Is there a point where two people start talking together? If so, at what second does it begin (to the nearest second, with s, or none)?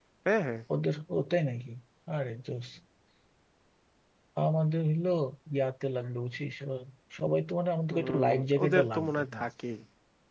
8 s